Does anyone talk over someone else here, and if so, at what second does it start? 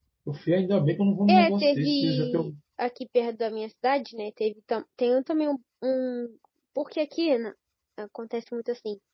1.3 s

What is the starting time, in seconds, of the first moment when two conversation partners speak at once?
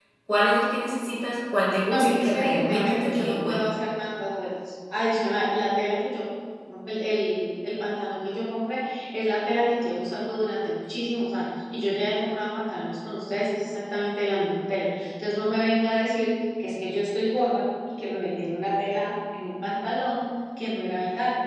1.9 s

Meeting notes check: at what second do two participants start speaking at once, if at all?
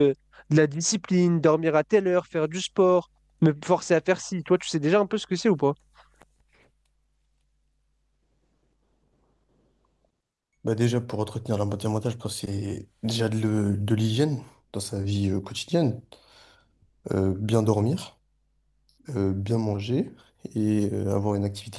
none

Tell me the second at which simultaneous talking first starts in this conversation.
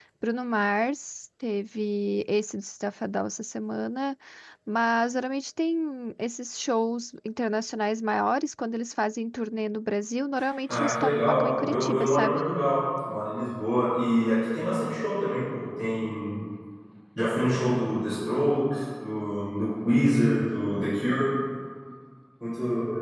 10.7 s

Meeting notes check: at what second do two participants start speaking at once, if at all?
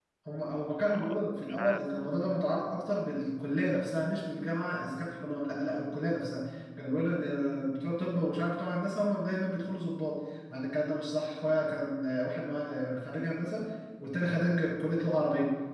0.7 s

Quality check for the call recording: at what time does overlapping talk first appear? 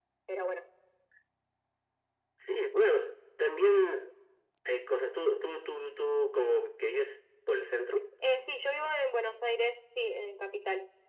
none

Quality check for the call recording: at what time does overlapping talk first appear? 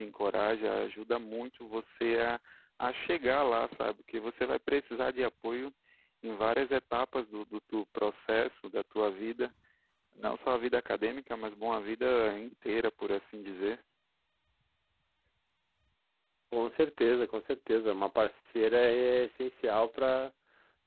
none

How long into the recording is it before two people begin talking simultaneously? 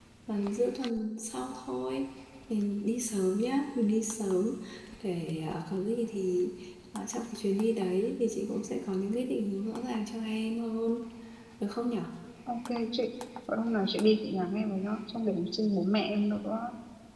none

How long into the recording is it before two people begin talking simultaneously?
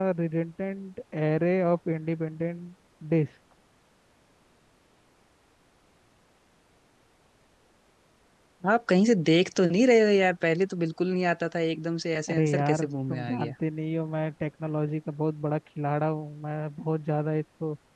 12.3 s

